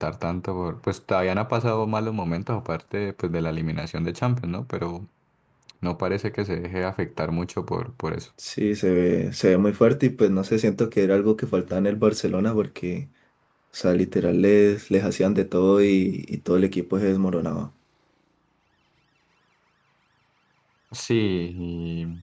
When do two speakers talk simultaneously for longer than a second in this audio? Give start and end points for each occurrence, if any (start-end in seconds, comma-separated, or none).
none